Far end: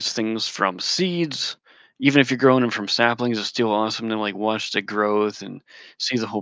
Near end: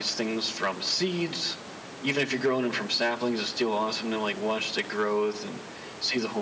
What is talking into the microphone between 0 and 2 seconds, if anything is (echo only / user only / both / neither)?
echo only